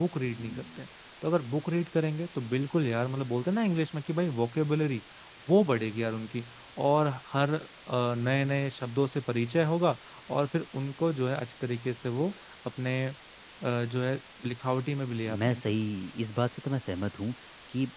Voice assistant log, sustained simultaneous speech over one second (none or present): none